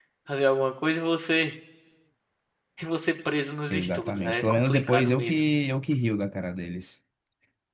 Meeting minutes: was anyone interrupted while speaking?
Yes, from 3.7 s

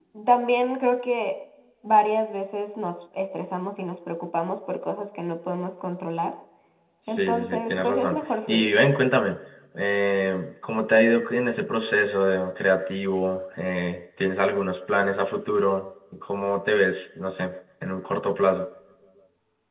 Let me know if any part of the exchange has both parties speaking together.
Yes, from 7.1 s

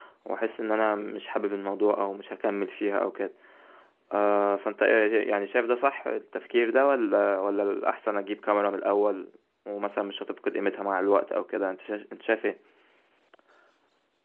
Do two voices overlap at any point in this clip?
No

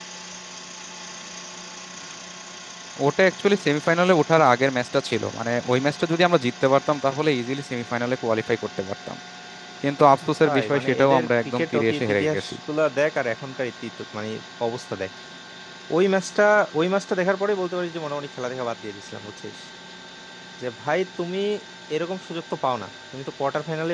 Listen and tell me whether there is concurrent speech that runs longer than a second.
Yes, from 10.4 s

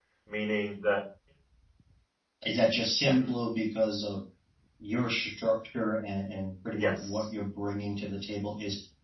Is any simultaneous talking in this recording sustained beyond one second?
No

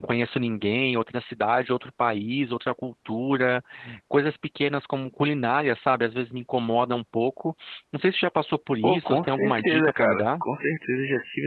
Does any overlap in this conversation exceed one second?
Yes, from 8.8 s

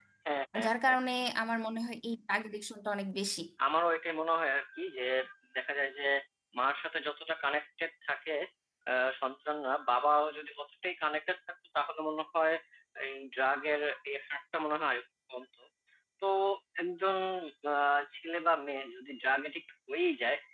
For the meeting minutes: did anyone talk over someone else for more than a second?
No

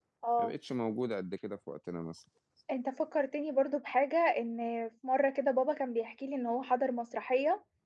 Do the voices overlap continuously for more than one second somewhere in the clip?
No

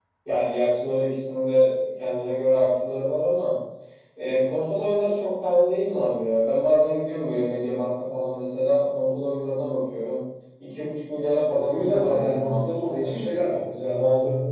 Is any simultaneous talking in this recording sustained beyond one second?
Yes, from 11.5 s

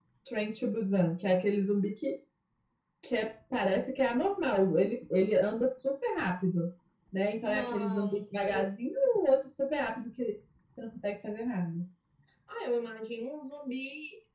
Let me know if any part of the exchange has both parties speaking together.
Yes, from 7.4 s

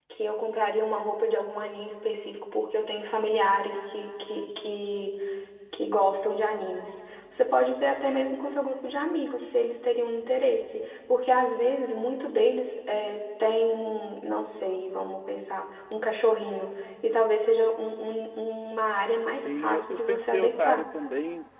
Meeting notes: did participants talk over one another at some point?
Yes, from 19.3 s

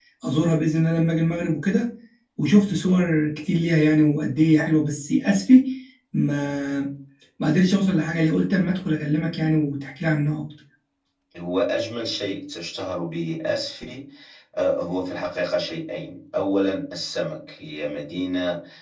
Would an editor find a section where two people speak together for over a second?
No

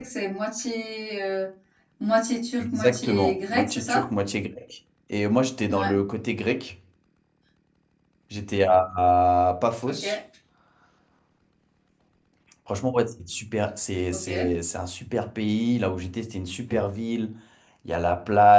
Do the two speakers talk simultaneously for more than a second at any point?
Yes, from 2.6 s

